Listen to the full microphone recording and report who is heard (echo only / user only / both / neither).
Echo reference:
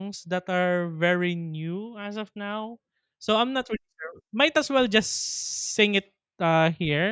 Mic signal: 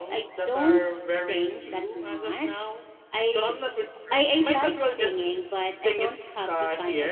both